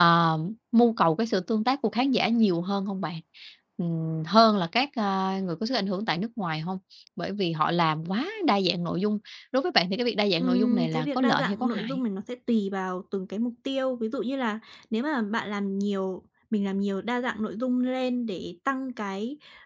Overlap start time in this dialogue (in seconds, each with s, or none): 10.4 s